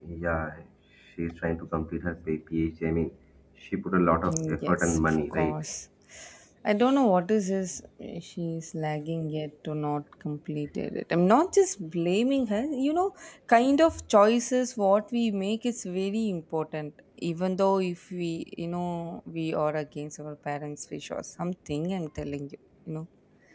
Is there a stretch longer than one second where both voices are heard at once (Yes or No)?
Yes